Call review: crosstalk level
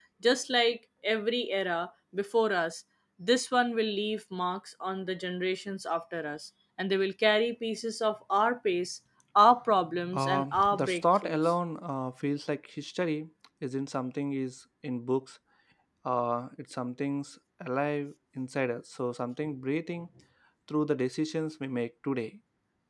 present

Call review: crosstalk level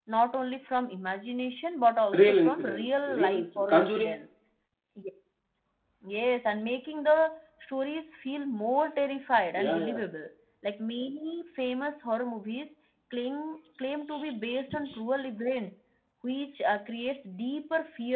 present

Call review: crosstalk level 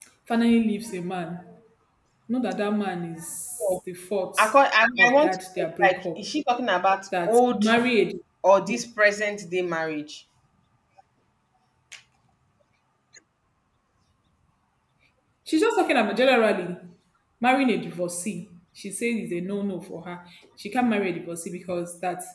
present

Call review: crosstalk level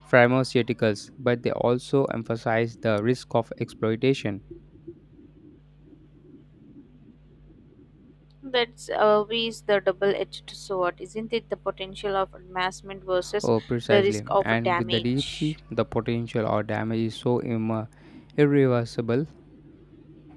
present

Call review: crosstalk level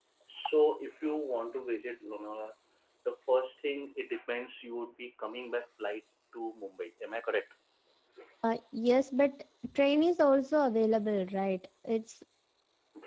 none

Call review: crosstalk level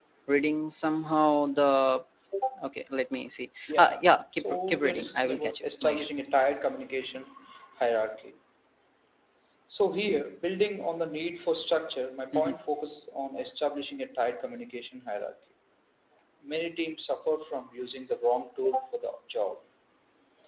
present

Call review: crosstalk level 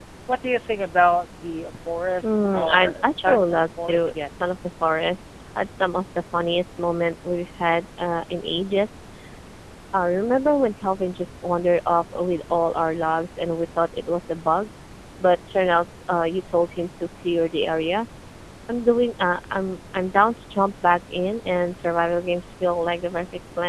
present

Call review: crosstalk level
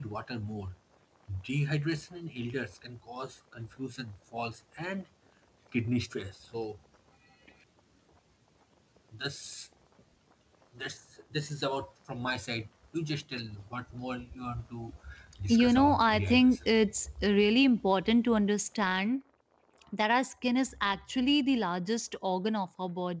present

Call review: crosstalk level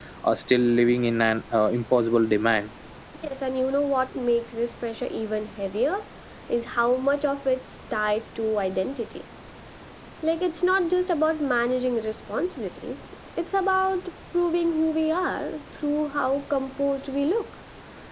none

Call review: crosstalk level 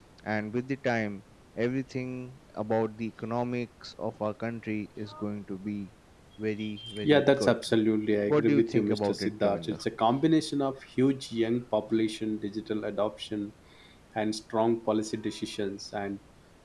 present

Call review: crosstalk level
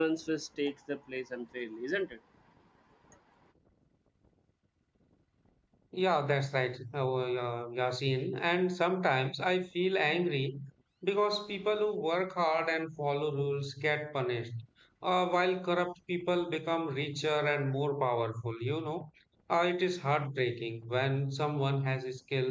none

